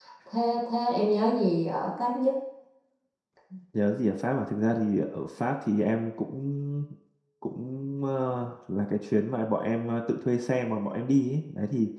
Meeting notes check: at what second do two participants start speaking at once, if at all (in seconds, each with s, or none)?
none